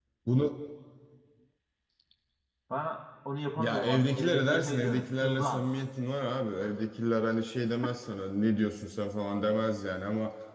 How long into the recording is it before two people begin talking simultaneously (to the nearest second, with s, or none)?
4 s